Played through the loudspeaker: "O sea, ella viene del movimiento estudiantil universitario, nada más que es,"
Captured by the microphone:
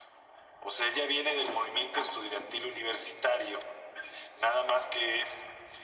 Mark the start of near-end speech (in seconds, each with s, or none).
none